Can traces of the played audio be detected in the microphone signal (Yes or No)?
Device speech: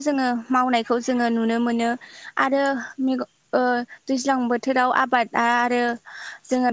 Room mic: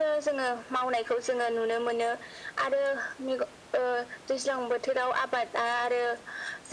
Yes